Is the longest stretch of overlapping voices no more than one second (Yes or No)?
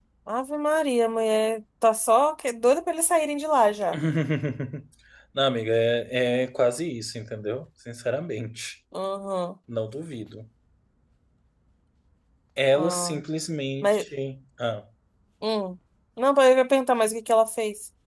Yes